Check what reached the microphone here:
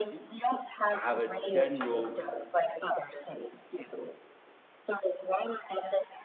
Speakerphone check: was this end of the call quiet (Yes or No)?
No